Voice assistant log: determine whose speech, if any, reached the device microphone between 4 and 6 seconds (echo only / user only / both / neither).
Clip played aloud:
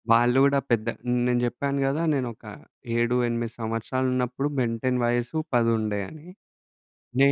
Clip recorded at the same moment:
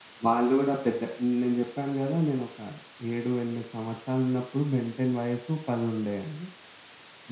echo only